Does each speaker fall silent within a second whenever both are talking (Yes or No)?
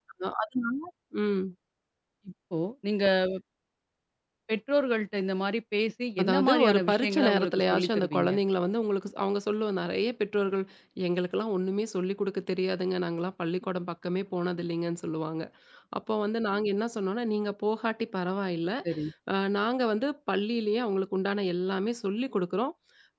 No